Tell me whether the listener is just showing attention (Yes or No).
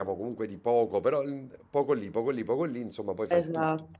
No